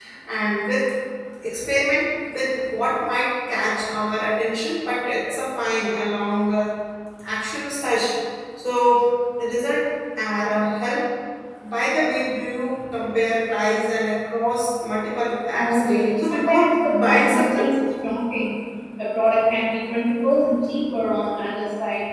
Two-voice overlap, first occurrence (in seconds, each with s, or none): 15.6 s